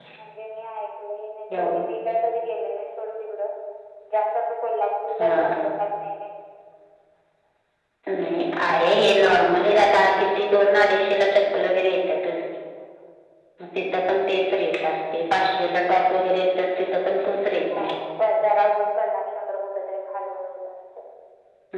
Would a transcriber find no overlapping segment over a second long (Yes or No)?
Yes